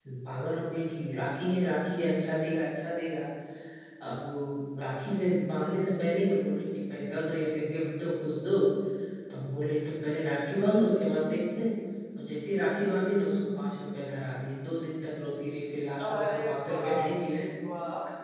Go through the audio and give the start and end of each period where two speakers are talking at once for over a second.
16.1-17.4

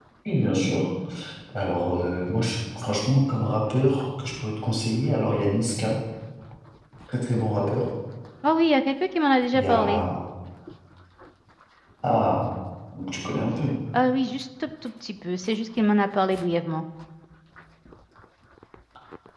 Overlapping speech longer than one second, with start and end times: none

